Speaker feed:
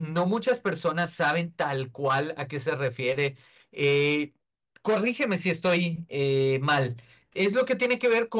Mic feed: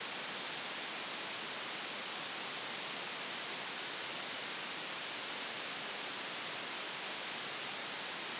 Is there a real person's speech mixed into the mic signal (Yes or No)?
No